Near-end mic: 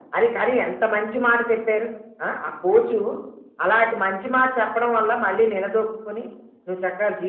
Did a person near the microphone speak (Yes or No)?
No